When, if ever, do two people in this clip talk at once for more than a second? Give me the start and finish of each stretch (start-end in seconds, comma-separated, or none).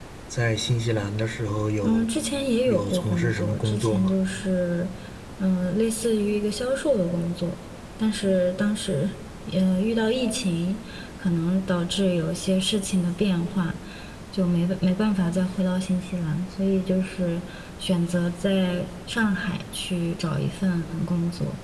2.7-4.1